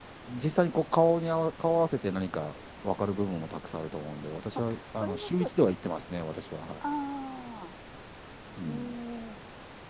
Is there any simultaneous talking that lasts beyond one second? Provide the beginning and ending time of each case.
4.5-5.8

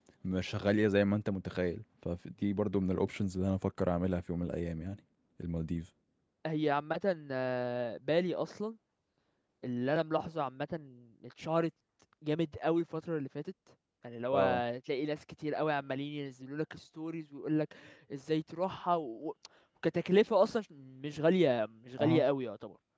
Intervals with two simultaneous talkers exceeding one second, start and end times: none

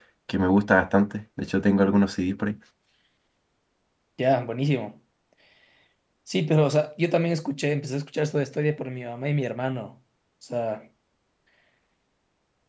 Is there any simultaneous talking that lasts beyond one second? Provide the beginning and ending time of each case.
none

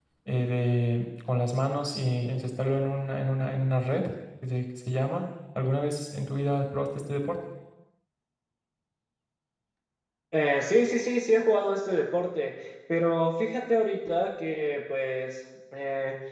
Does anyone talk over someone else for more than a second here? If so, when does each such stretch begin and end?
none

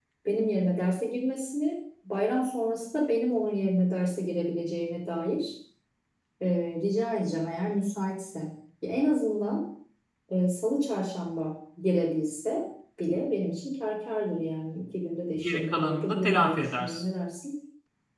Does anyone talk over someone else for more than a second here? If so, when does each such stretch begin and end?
15.4-17.0

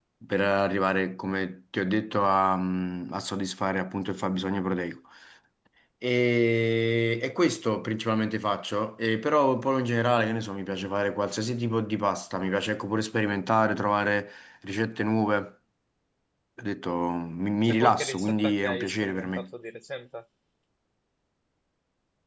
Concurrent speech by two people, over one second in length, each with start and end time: 17.6-19.5

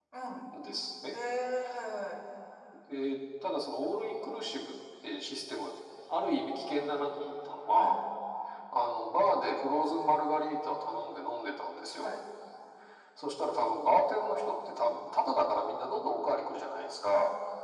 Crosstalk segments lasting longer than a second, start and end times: none

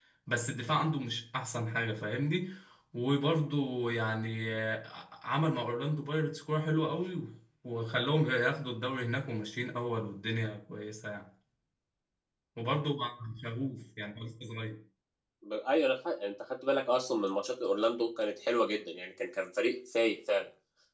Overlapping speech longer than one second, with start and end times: none

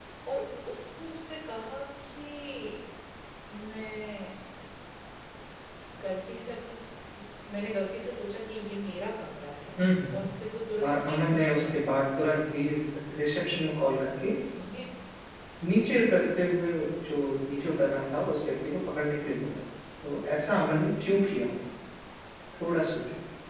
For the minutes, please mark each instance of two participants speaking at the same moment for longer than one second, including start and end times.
10.8-12.4

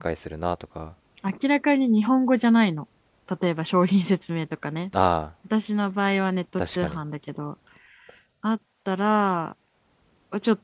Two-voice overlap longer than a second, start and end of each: none

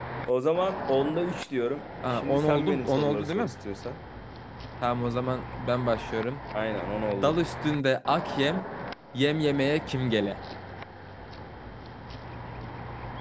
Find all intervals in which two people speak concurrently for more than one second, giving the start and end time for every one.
2.1-3.5

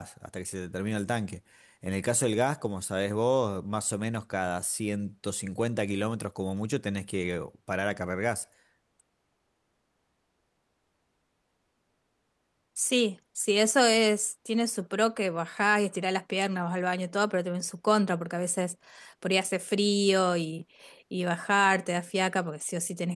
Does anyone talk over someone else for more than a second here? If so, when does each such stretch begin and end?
none

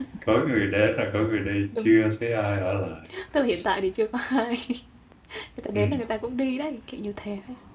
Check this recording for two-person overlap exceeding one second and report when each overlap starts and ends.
none

